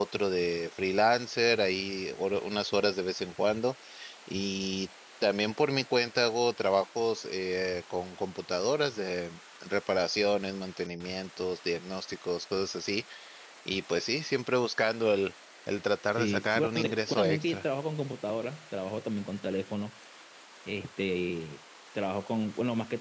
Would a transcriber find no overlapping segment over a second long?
No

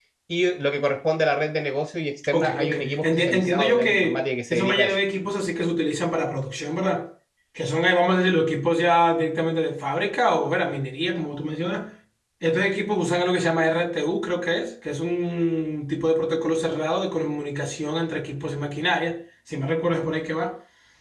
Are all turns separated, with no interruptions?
No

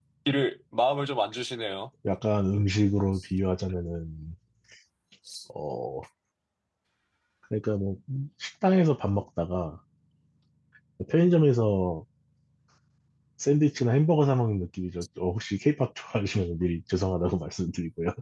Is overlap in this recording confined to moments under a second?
Yes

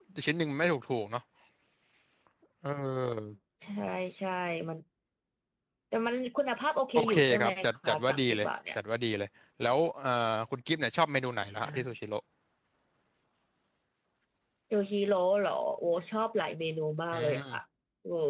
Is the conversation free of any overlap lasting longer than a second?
No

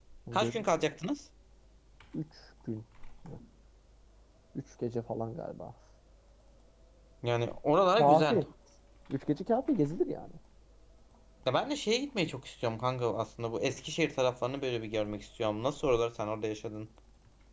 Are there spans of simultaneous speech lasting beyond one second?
No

